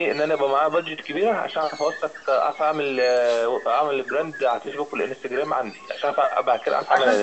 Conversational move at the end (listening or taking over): taking over